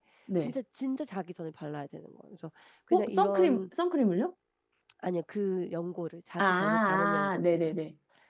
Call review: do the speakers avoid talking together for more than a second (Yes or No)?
No